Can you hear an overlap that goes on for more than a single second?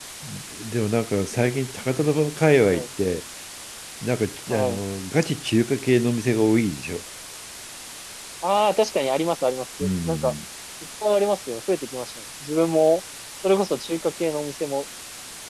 No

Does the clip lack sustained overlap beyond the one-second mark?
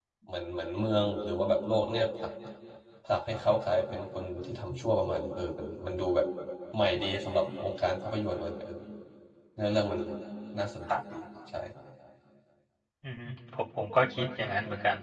Yes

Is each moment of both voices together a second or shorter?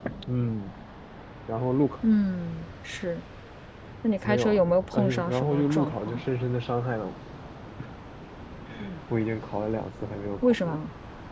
No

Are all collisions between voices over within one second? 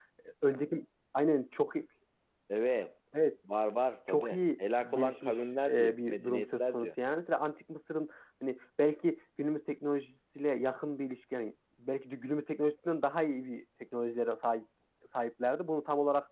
No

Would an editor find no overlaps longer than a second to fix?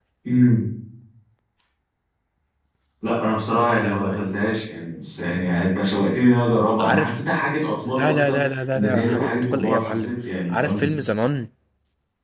No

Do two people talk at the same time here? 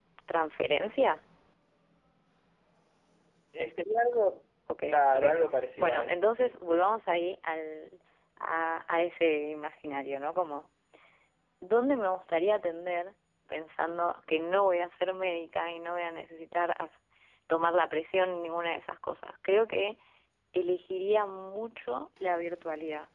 Yes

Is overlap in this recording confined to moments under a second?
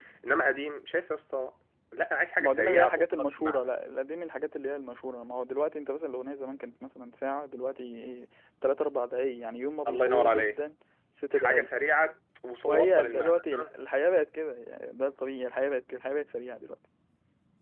No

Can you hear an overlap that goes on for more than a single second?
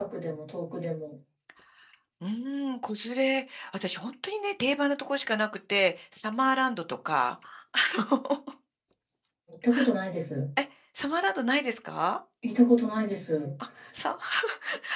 No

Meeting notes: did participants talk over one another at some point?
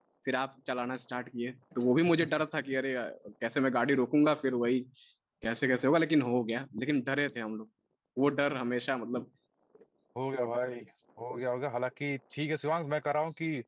No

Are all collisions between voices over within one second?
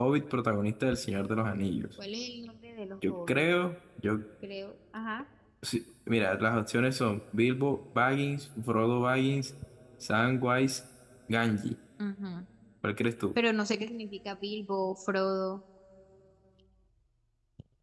Yes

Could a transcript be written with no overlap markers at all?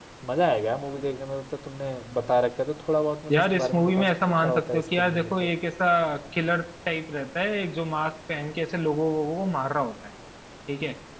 No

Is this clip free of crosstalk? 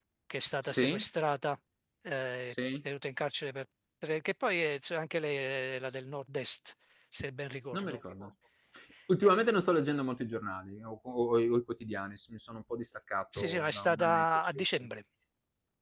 No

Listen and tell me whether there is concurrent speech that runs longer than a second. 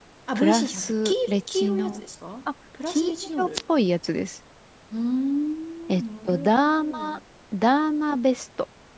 Yes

